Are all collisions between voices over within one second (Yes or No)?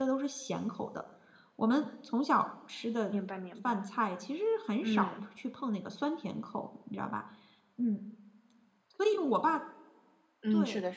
Yes